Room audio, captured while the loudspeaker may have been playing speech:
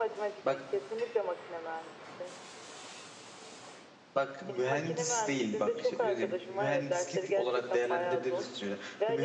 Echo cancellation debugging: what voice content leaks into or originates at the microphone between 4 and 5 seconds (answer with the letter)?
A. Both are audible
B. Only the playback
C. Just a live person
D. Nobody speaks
A